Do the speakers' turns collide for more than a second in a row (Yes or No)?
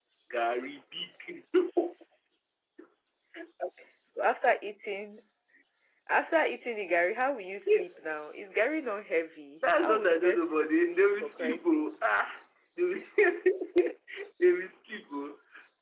Yes